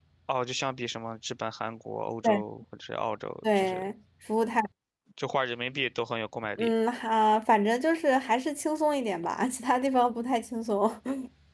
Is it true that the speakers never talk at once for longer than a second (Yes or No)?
Yes